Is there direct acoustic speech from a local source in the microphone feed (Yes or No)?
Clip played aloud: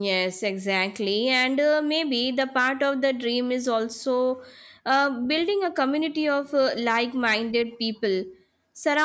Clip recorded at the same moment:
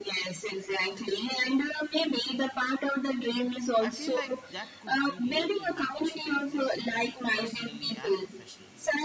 Yes